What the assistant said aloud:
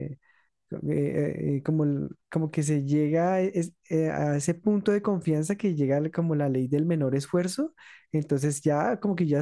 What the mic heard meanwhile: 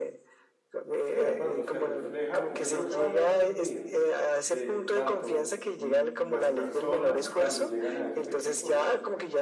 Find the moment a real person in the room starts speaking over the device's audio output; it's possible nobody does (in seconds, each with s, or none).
1.0 s